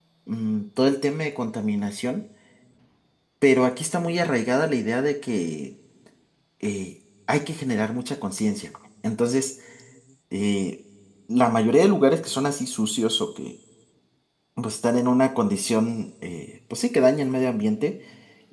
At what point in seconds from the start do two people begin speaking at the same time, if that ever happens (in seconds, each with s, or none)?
none